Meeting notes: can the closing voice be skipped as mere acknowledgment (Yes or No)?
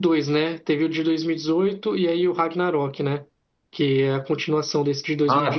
No